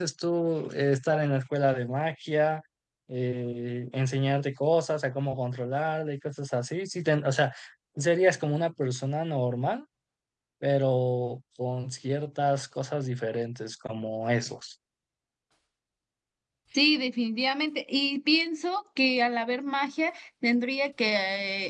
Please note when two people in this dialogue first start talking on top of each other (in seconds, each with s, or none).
none